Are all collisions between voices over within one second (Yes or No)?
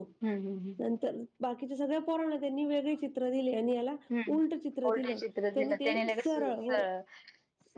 No